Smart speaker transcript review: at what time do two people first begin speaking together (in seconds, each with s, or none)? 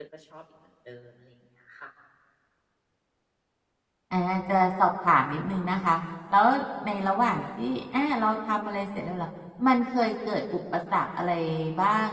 none